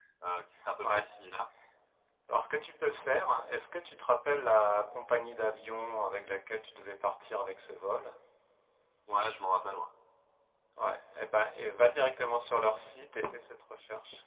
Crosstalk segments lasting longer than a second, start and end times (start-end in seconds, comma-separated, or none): none